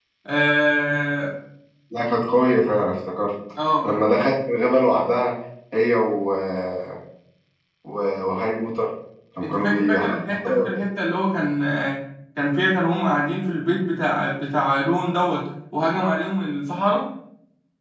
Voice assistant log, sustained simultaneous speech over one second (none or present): present